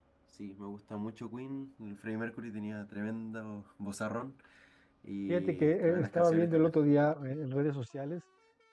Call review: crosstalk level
present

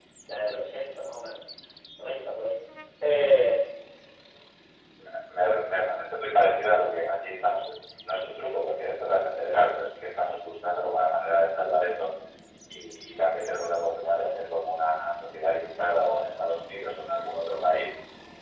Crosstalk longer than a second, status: none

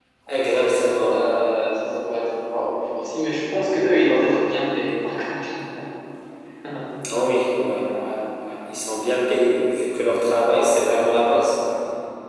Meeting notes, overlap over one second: present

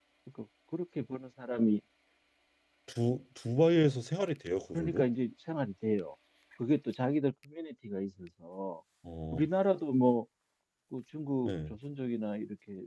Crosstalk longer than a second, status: none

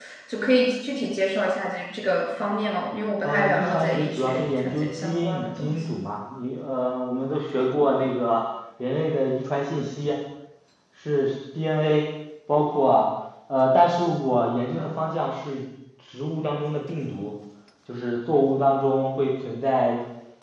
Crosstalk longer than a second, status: present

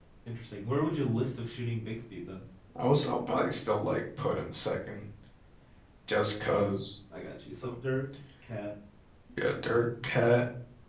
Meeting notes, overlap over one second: none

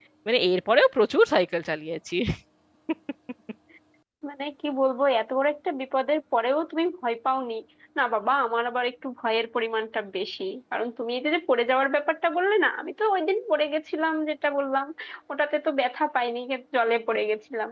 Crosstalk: none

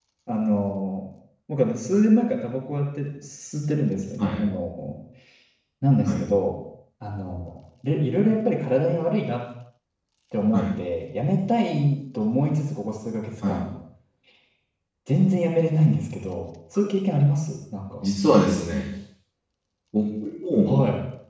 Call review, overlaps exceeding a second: none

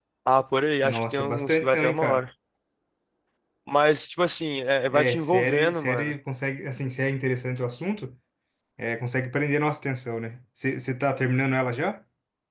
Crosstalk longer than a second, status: present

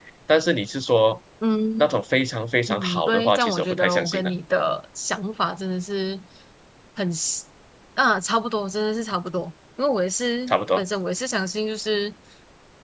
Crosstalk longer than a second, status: present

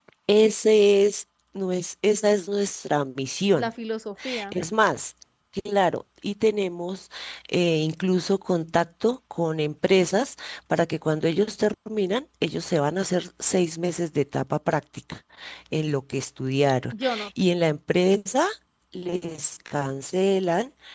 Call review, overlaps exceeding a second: none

